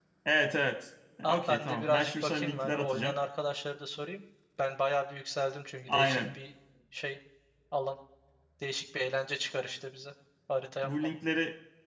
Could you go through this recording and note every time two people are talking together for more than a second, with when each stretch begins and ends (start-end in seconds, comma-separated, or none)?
1.2-3.1